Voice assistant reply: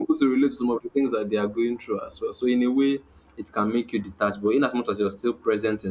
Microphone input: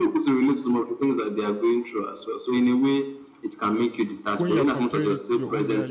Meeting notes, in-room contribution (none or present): present